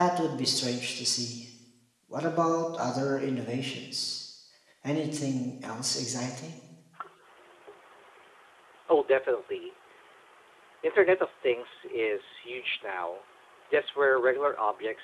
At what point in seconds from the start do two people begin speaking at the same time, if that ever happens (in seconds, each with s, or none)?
none